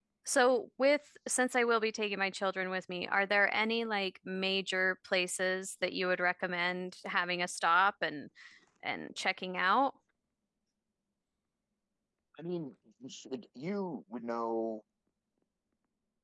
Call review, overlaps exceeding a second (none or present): none